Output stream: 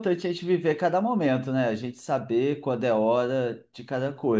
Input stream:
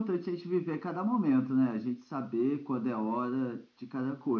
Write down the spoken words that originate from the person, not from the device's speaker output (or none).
none